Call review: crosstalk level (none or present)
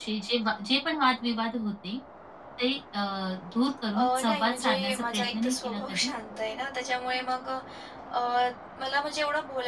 present